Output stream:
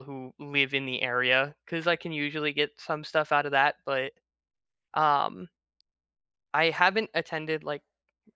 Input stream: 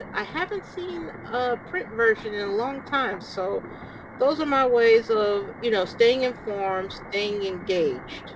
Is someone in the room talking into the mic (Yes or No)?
Yes